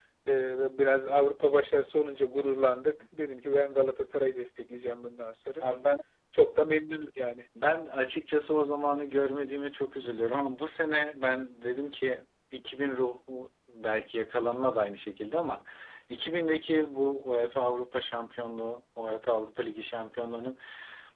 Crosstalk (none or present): none